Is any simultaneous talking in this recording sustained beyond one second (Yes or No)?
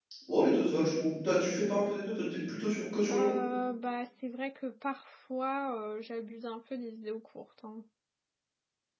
No